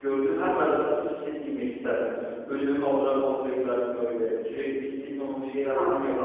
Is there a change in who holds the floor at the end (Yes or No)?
No